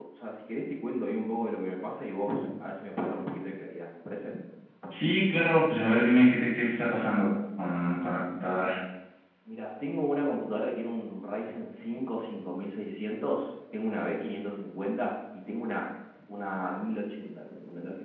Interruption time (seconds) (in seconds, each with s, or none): none